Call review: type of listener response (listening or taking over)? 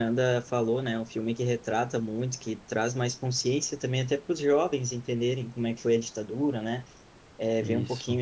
listening